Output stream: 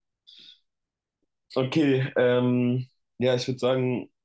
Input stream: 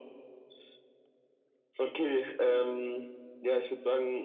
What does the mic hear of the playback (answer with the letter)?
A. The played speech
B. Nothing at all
A